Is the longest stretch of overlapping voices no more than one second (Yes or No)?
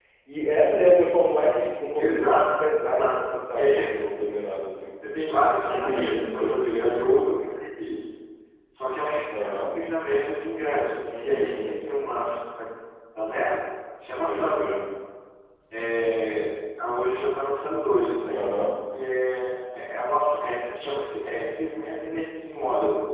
No